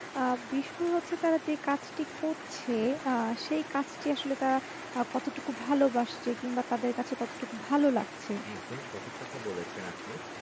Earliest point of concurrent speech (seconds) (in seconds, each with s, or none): none